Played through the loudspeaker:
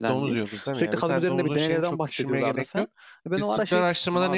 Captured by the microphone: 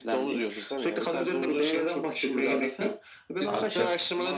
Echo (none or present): present